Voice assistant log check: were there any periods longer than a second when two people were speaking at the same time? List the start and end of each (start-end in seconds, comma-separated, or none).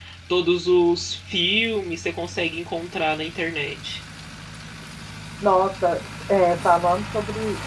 none